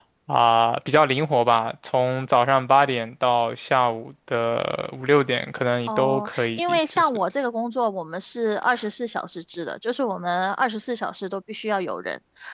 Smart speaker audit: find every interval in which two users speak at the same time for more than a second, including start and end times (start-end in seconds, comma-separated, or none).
5.9-7.1